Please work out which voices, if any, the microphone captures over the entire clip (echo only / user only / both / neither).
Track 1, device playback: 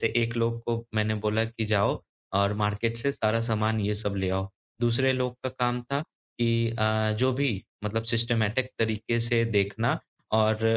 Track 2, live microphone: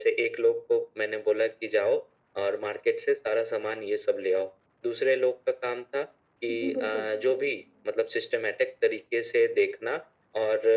both